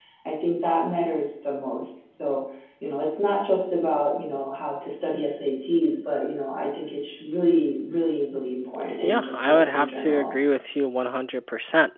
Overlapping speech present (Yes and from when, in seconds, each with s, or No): Yes, from 9.0 s